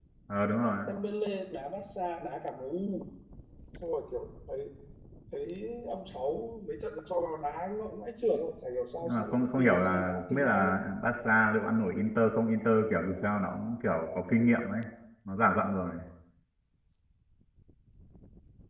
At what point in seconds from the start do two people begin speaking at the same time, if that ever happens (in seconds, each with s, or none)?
9.0 s